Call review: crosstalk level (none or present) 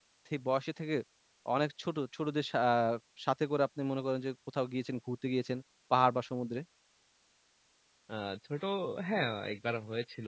none